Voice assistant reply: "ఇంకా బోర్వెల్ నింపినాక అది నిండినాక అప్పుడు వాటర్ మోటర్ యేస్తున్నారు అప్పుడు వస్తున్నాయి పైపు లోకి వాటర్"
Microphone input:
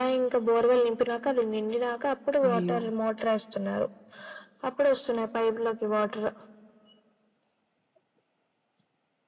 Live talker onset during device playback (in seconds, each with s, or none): 2.5 s